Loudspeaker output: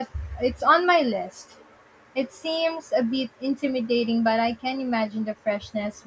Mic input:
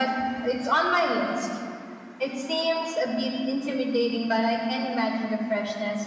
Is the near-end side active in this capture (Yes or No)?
No